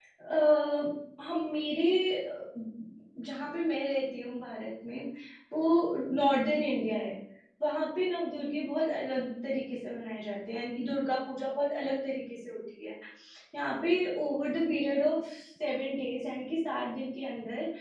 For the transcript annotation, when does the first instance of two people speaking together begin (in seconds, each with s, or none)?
none